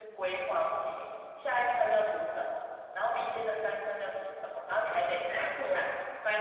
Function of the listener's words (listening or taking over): listening